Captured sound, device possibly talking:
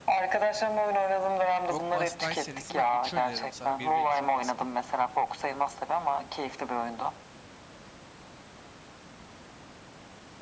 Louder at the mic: echo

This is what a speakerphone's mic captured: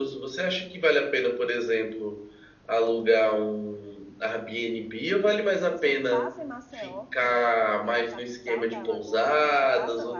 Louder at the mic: echo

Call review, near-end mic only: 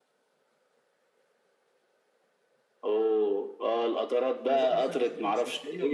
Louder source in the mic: echo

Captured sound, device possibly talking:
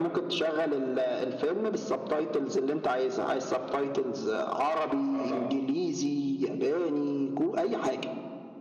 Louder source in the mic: echo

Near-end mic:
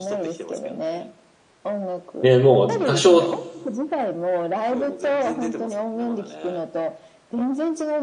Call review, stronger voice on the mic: user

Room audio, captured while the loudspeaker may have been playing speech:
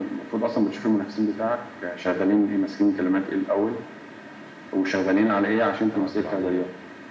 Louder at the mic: echo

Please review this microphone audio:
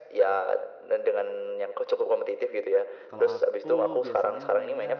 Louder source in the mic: echo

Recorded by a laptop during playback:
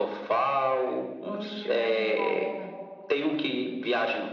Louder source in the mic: echo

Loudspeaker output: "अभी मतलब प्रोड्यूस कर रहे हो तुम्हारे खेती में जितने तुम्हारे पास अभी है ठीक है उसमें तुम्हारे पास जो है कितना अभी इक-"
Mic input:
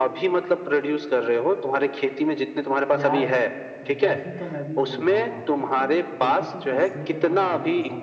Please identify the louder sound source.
echo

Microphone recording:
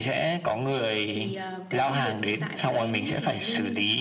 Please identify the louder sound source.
echo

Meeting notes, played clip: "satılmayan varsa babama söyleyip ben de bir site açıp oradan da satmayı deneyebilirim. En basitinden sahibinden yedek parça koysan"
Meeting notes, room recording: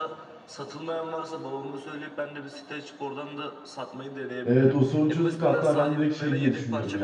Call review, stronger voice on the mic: user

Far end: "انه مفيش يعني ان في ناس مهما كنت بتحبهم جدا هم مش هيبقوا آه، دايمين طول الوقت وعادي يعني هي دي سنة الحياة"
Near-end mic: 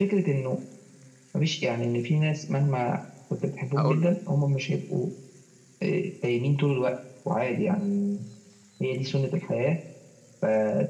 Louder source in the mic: echo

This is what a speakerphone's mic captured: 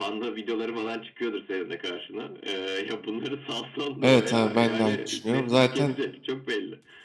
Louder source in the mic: user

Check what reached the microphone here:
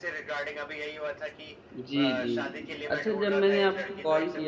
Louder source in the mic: user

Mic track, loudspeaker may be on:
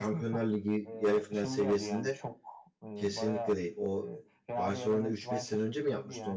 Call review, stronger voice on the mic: user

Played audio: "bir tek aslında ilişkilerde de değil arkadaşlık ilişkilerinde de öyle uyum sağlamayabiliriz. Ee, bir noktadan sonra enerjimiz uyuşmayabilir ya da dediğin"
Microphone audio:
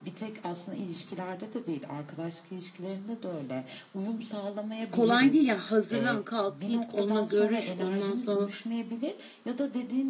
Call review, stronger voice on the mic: user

